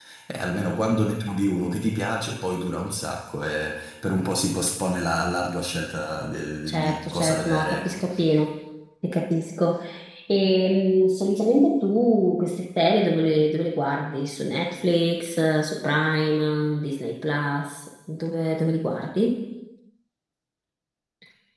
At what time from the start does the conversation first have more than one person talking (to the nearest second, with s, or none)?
7 s